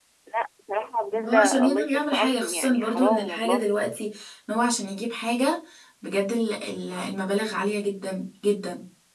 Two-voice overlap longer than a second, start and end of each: 1.3-3.7

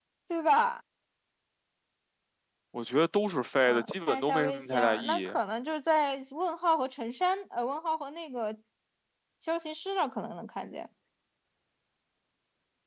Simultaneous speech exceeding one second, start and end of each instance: 3.6-5.3

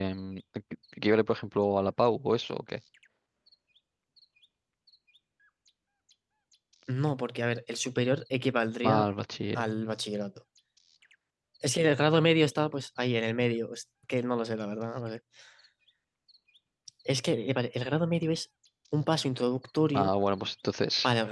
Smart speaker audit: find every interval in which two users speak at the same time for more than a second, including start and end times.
none

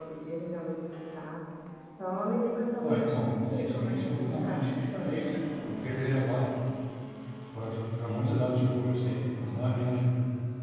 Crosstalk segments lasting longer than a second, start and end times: 2.8-4.7

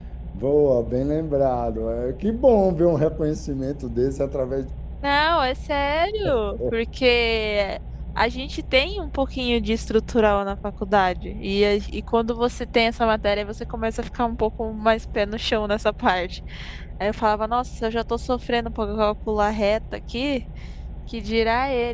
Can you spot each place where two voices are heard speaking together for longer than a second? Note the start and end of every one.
none

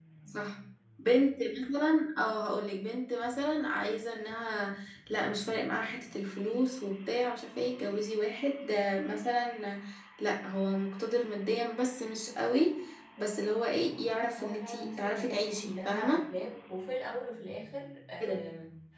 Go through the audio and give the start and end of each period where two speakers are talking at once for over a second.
14.4-16.2

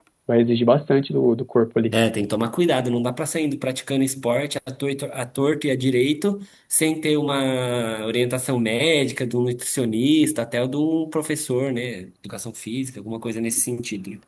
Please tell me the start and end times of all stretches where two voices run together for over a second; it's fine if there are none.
none

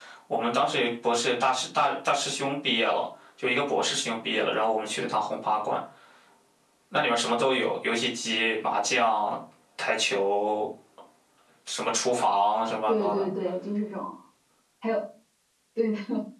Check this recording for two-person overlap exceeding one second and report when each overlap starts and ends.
none

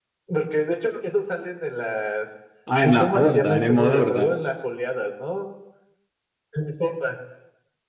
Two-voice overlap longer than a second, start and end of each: 2.7-4.3

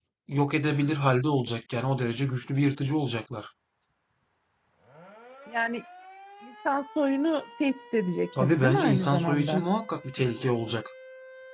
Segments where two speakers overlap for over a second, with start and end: 8.4-9.6

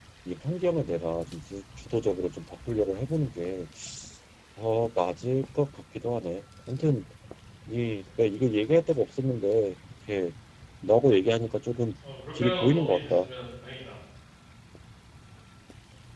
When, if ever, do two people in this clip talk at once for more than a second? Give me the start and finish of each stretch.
12.1-13.3

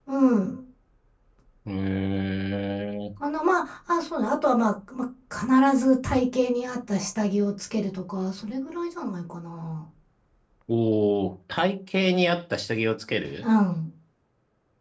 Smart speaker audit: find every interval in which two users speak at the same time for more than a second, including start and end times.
none

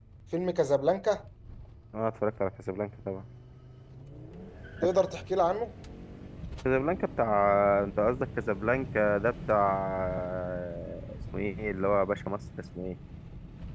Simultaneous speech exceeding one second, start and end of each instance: none

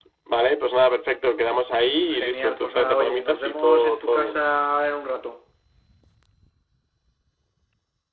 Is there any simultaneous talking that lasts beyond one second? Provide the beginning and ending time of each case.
2.2-4.3

